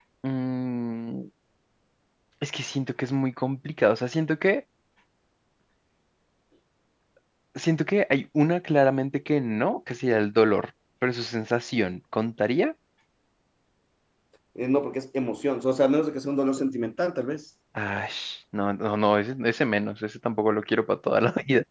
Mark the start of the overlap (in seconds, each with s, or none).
none